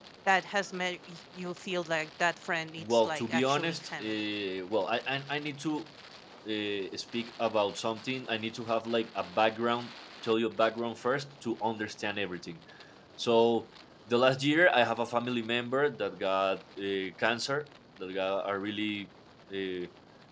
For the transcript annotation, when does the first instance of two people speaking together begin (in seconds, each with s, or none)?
2.8 s